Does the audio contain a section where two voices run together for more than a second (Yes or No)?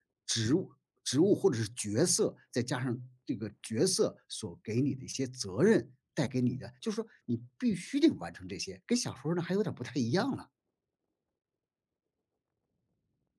No